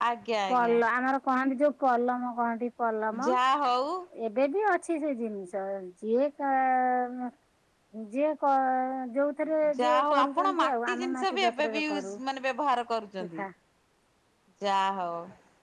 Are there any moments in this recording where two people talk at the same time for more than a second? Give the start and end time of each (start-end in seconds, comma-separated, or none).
9.8-12.2